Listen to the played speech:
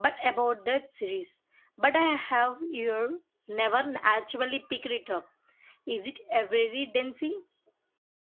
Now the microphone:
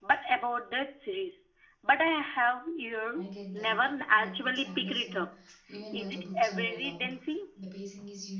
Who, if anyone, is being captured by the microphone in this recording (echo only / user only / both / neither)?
both